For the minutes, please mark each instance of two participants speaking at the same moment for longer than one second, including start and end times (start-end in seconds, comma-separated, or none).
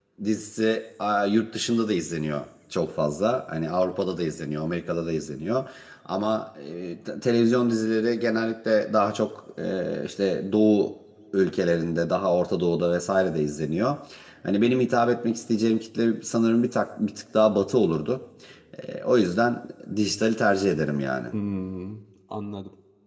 none